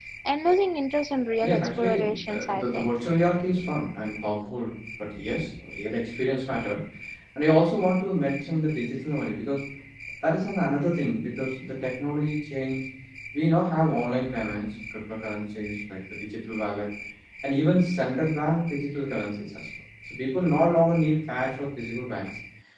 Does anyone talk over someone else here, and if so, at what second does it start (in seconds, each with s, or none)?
1.4 s